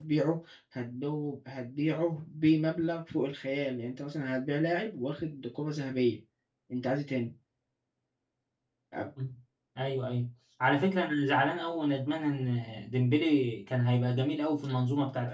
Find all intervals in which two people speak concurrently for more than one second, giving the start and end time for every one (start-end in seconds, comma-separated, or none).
none